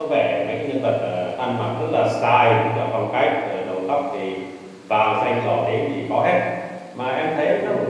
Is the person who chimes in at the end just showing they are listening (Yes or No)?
No